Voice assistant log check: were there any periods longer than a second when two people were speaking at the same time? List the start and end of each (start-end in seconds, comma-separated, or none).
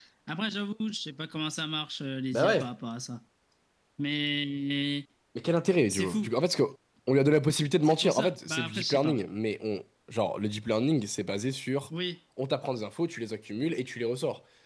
7.8-9.2